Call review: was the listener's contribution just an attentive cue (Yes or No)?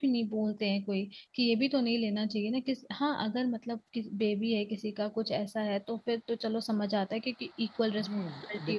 No